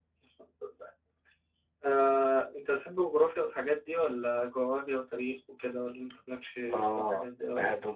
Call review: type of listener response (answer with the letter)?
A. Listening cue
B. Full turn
B